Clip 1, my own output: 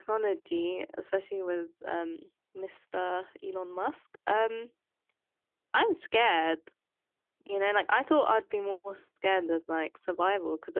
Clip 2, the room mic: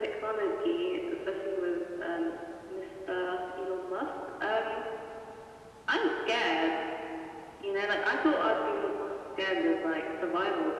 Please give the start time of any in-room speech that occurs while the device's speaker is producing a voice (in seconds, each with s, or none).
none